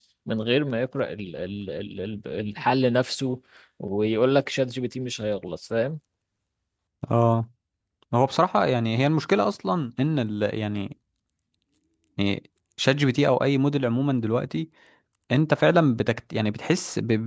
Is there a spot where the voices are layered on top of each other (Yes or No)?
No